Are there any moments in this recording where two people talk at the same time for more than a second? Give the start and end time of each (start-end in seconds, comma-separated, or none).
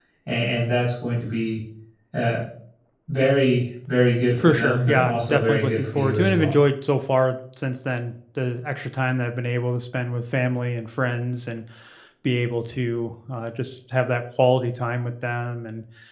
4.4-6.5